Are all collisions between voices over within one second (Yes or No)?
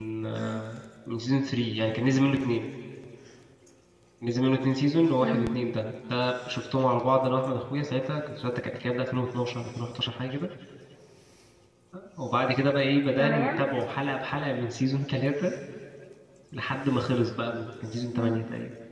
Yes